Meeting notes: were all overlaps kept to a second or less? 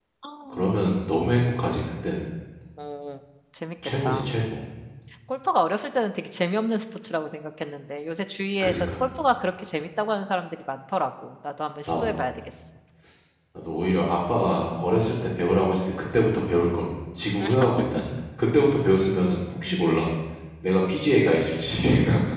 Yes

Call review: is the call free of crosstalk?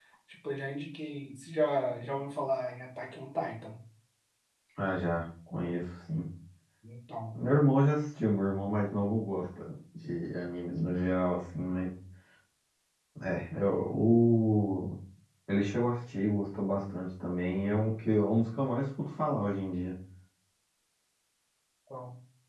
Yes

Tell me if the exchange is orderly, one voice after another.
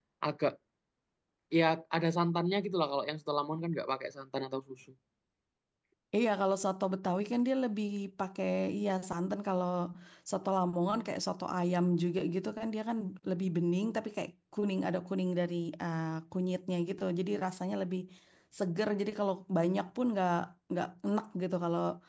Yes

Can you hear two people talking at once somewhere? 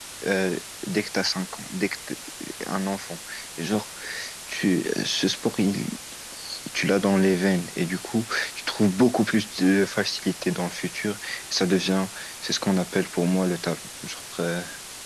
No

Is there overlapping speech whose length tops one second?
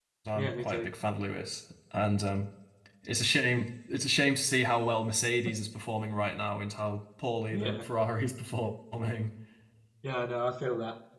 No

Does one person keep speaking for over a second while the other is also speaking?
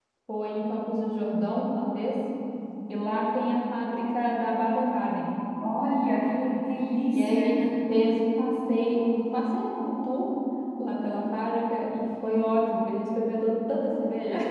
No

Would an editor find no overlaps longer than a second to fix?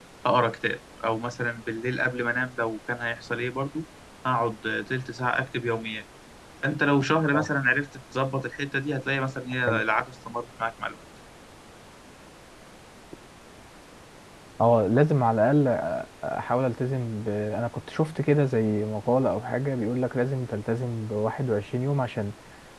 Yes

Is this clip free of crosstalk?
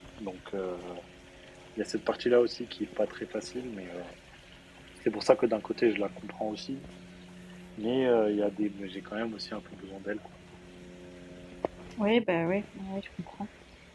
Yes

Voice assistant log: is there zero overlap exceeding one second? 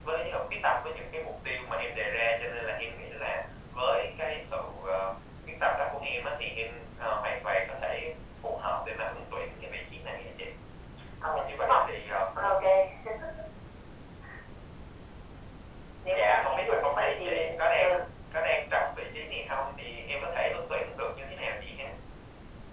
No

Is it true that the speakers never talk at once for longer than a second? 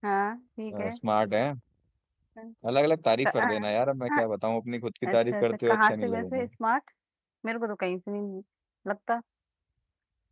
No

